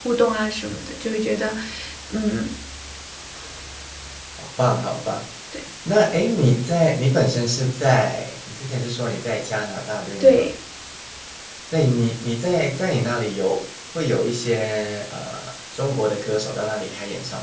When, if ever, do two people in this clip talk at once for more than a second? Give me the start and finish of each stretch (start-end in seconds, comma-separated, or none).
none